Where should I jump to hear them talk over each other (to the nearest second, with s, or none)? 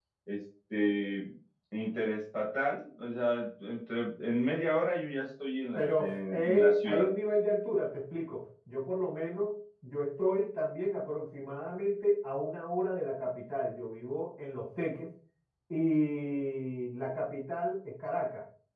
6 s